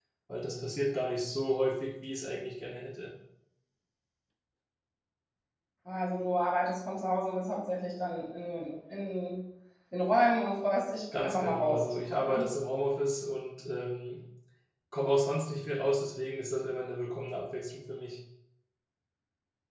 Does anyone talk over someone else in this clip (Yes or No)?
Yes